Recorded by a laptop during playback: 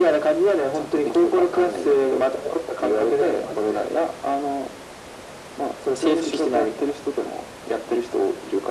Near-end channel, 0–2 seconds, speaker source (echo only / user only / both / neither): echo only